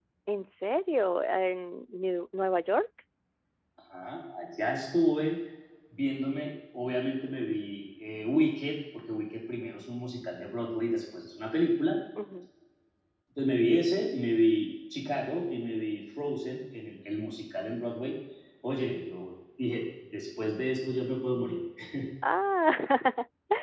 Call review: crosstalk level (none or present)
none